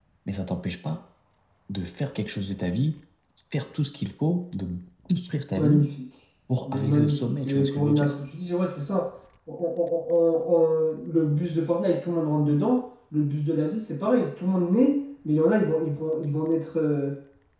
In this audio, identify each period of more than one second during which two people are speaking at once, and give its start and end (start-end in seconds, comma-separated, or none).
6.6-8.1